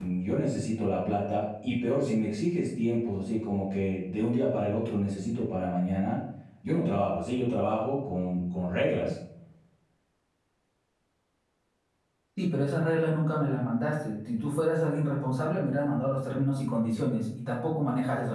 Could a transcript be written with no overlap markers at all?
Yes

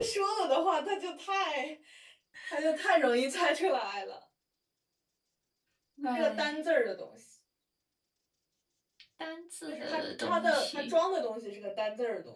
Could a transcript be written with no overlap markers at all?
No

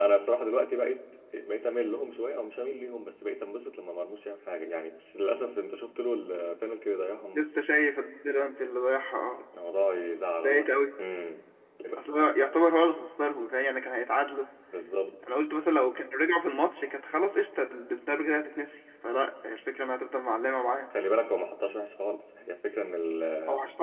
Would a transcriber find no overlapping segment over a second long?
Yes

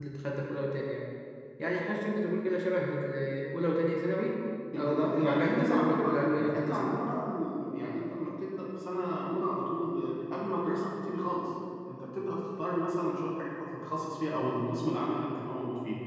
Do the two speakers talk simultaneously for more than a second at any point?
Yes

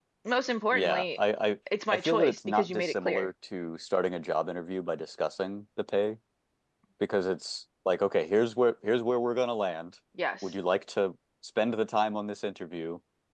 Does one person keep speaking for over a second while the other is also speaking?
Yes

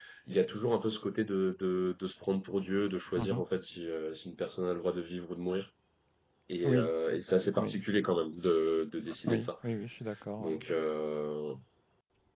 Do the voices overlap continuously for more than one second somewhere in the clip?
No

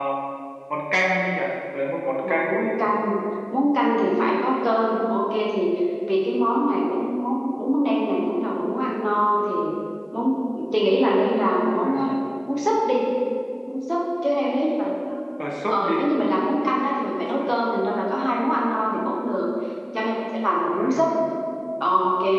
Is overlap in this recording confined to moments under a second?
Yes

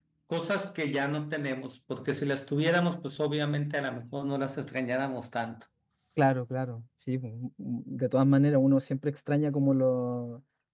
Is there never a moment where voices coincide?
Yes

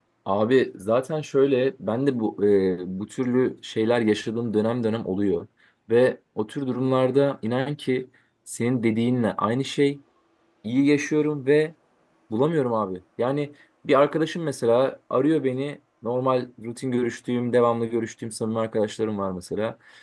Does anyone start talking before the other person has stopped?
No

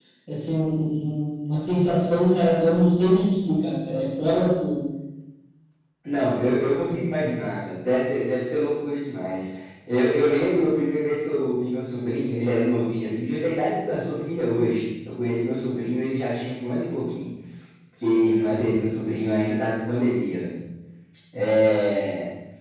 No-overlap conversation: Yes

